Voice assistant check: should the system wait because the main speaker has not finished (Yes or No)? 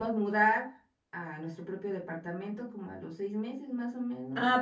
No